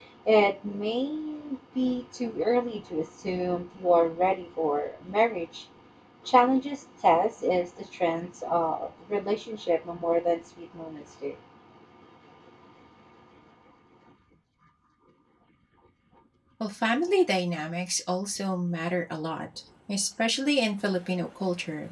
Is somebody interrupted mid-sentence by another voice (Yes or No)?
No